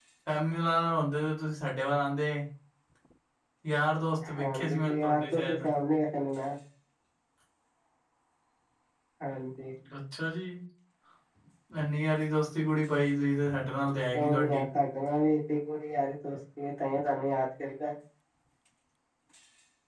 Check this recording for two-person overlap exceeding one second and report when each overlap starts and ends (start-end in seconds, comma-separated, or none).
4.4-5.7